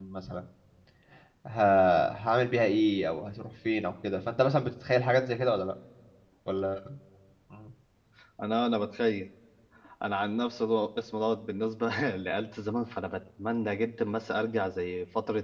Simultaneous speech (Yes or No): No